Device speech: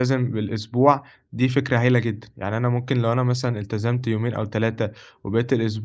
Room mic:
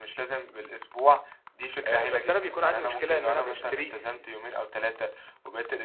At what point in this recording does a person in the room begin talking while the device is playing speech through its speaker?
1.8 s

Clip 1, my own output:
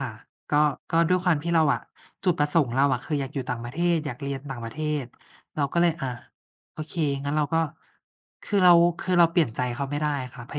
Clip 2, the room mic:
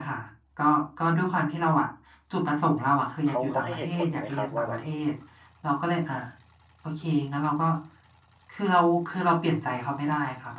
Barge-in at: 3.3 s

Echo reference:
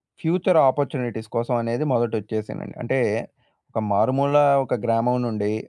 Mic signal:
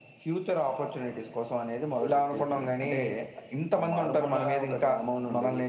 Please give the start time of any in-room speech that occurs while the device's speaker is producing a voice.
2.1 s

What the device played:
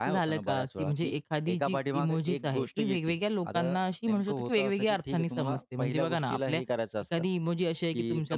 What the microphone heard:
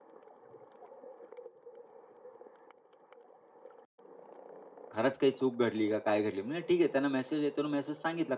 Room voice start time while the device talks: 4.9 s

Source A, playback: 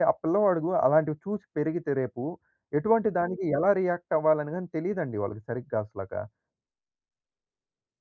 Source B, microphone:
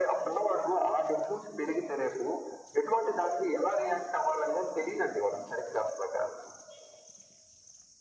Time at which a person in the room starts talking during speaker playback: none

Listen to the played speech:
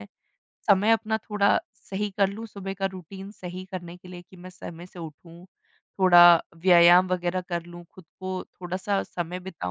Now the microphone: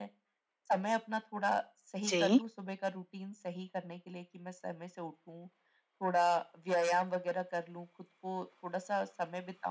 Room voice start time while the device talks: 2.1 s

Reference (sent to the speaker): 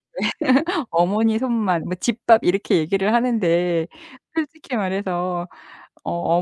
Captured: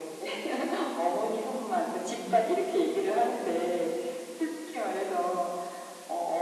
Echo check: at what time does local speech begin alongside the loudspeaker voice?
2.2 s

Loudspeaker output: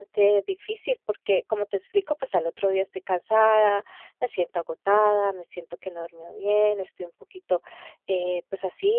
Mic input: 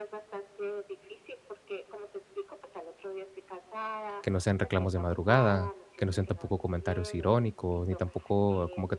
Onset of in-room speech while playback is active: 4.2 s

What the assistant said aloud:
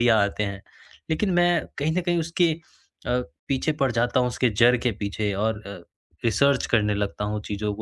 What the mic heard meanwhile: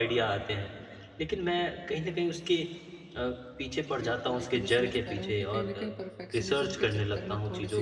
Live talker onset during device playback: 4.0 s

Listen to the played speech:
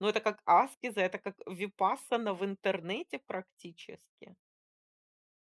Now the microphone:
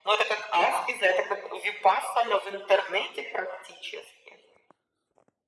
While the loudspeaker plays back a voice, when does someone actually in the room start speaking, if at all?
none

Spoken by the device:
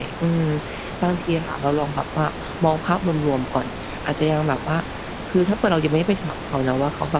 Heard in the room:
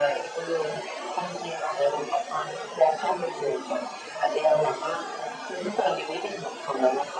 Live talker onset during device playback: none

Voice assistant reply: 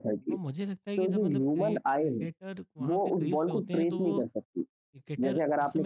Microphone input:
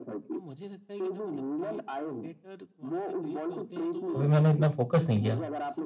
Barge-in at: 4.2 s

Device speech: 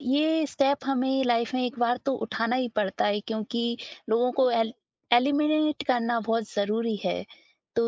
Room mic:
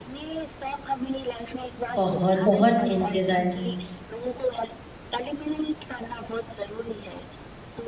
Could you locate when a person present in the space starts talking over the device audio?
1.9 s

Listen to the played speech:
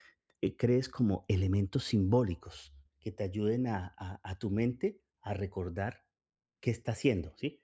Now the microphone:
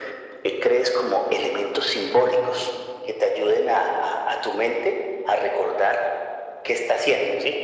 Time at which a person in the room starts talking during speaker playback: none

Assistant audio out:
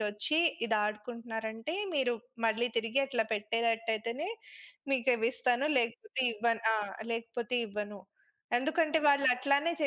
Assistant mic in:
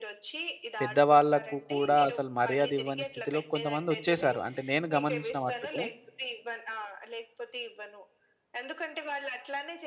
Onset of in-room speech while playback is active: 0.8 s

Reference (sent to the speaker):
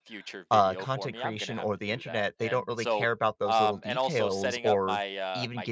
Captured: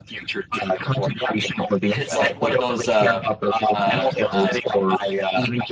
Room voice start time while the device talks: 1.9 s

